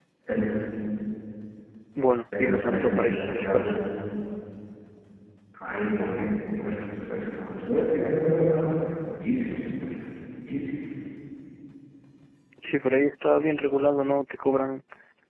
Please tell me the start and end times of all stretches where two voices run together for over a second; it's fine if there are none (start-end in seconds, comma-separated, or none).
2.4-3.8